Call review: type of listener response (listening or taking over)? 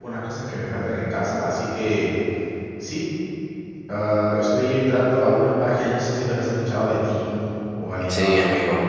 taking over